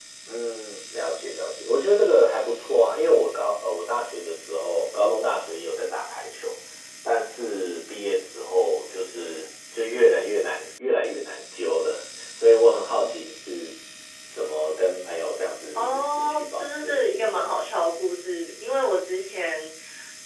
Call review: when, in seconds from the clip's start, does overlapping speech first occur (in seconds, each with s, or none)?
15.8 s